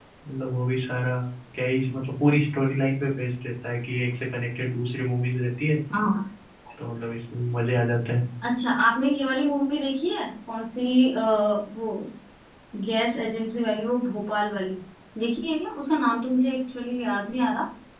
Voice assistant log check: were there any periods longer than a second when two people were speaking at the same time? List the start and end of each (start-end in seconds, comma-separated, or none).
none